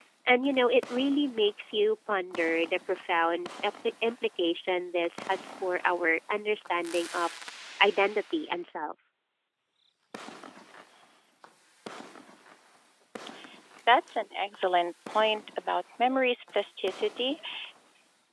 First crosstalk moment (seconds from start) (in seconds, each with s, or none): none